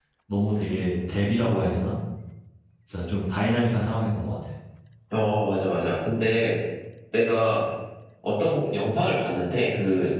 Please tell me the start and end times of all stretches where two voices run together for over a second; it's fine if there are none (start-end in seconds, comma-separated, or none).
none